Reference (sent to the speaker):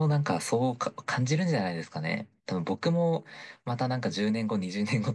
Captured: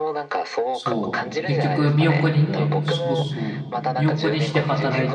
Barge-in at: 0.7 s

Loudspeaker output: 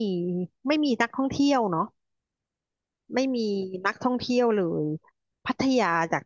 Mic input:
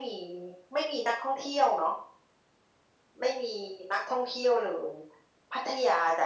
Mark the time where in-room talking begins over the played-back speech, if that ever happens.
none

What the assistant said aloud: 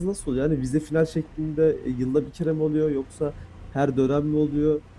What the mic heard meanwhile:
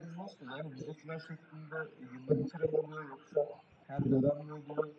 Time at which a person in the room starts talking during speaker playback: none

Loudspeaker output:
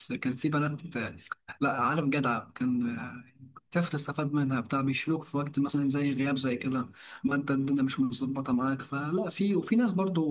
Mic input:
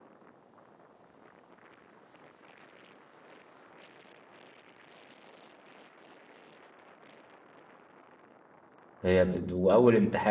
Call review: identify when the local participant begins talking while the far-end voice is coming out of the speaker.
9.0 s

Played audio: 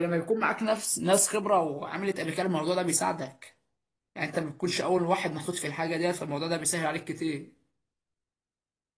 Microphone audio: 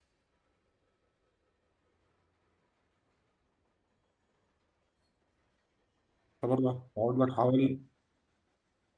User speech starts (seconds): 6.4 s

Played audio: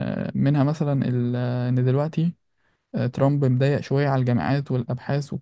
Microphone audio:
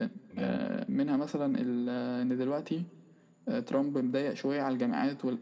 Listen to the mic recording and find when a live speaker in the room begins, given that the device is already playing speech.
0.4 s

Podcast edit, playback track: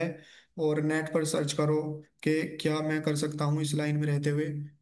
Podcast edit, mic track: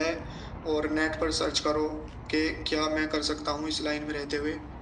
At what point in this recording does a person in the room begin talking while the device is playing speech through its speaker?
none

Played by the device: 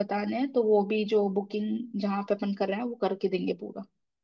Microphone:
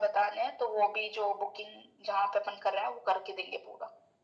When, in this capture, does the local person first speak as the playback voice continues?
none

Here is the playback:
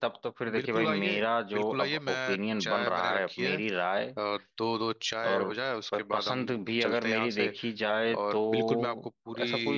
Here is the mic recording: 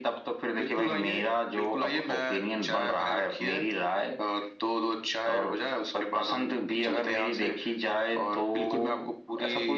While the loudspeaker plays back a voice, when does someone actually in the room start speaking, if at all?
none

